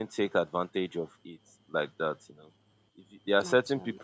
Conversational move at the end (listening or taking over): listening